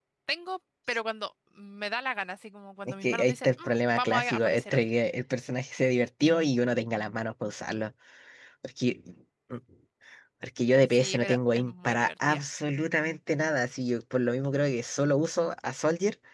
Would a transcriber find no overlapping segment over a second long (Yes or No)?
No